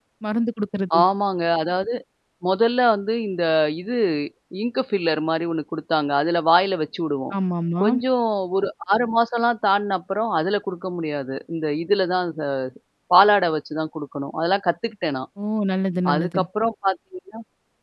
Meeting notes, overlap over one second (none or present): none